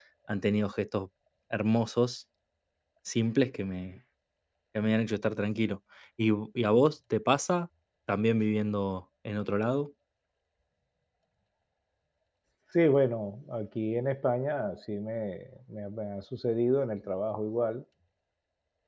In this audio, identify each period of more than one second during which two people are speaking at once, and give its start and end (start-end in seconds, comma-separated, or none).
none